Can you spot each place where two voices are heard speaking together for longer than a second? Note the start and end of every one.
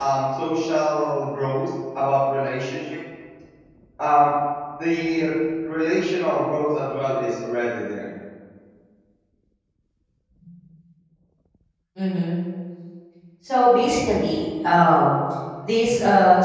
none

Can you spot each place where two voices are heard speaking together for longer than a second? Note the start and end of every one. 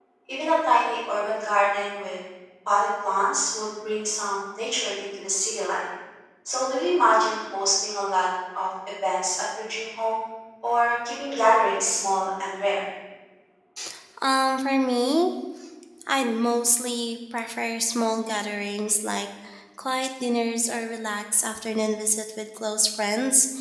none

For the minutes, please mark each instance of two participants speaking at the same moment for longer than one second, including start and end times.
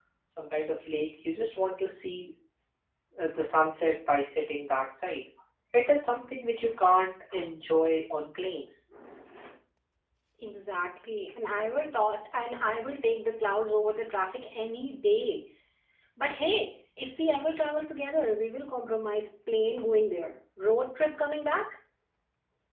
none

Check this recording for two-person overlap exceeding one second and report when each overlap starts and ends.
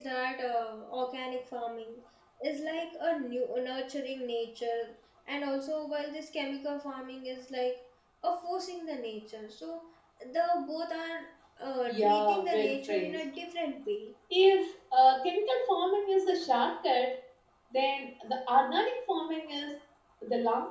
11.9-13.2

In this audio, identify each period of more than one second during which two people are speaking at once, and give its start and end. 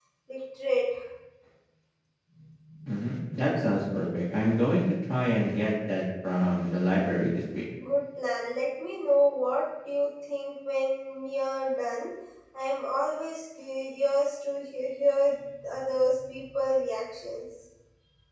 none

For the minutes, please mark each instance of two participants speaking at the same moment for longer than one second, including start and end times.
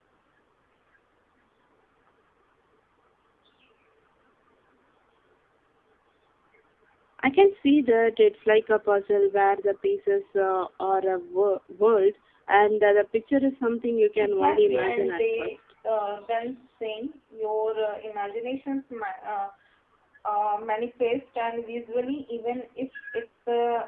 14.2-15.6

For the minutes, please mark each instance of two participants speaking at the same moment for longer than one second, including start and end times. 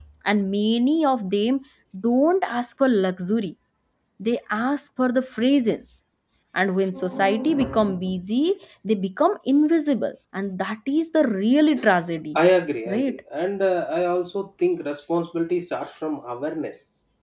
none

